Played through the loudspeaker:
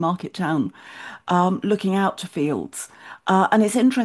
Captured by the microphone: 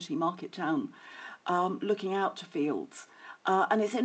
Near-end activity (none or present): none